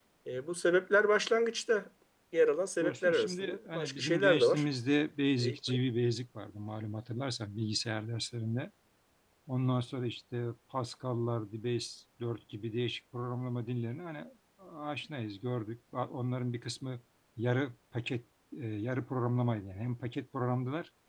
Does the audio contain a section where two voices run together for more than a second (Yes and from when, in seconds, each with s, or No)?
Yes, from 2.8 s